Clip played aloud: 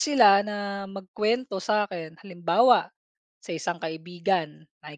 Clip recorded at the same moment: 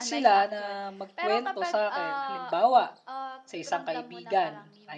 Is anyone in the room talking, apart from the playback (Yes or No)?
Yes